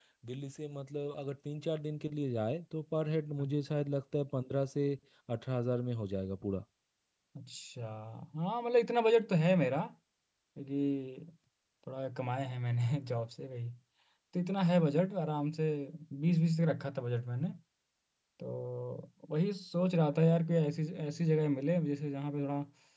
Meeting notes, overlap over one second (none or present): none